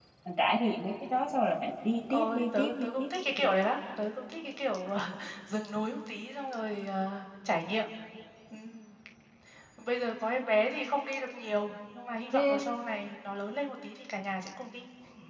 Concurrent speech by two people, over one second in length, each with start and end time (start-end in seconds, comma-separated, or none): 2.1-3.5